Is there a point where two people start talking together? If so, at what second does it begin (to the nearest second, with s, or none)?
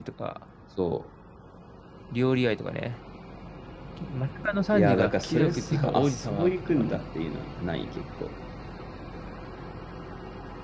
5 s